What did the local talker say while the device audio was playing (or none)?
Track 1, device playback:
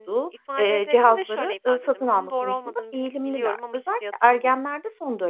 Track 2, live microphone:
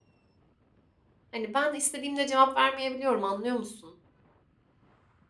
Hani, "Ben istediğimde cevap vermeyebiliyorum anlıyor musun?"